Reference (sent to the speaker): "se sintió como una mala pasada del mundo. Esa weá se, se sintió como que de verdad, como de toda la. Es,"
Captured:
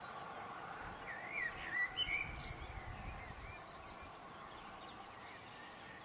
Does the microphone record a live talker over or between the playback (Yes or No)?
No